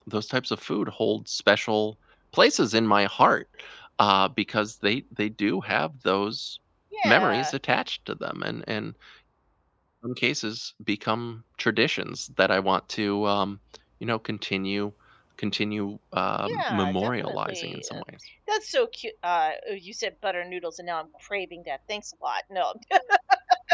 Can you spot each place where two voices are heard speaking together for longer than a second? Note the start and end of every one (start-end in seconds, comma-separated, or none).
16.6-18.0